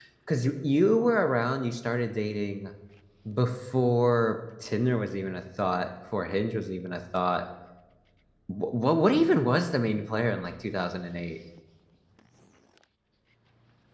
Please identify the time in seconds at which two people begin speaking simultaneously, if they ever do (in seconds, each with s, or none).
none